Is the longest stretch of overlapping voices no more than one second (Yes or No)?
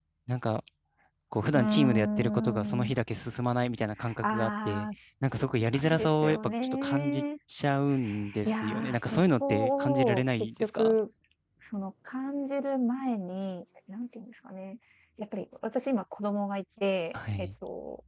No